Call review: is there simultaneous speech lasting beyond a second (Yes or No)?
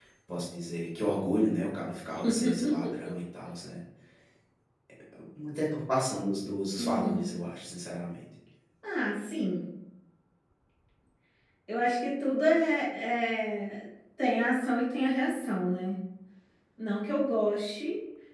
No